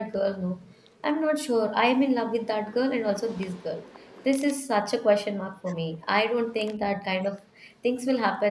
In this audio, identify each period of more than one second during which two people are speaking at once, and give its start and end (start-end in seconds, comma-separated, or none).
none